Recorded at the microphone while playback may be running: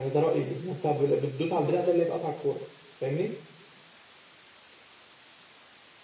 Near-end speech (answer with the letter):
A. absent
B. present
A